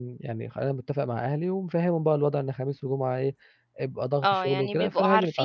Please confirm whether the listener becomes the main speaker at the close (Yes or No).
Yes